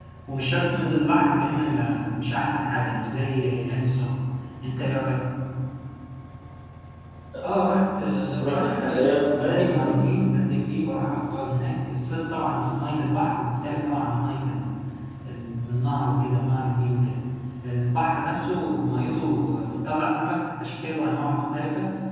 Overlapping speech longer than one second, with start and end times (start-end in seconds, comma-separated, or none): 8.4-10.0